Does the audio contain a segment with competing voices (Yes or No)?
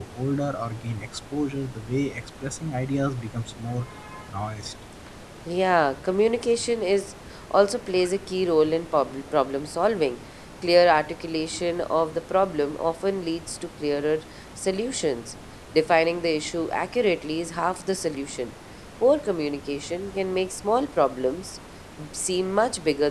No